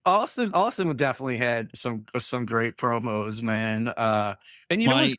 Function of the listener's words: listening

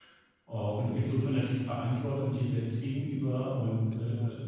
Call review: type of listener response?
listening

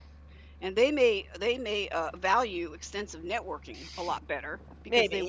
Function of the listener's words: listening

